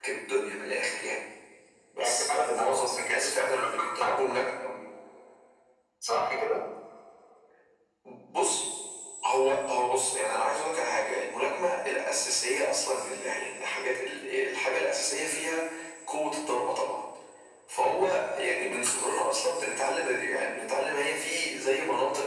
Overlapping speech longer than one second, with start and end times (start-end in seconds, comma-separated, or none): 2.0-4.1